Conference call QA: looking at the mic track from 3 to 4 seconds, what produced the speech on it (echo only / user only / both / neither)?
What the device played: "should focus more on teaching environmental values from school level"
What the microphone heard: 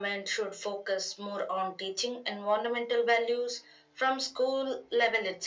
echo only